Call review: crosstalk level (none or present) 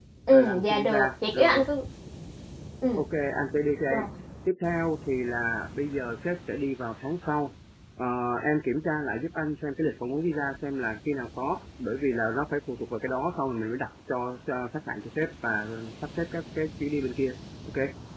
present